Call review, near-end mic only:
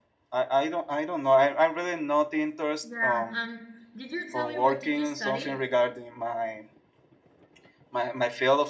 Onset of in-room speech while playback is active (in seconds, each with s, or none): 2.8 s